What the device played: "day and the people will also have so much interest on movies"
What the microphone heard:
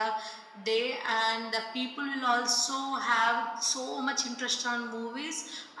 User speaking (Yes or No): No